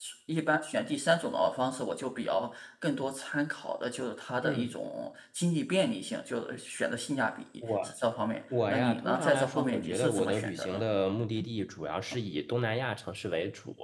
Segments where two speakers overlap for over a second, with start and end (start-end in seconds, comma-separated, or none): 8.7-10.8